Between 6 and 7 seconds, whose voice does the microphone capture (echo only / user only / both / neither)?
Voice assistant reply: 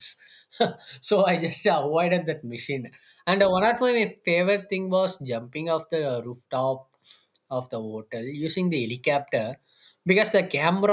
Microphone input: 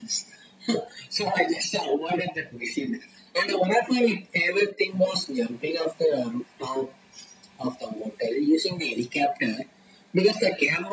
echo only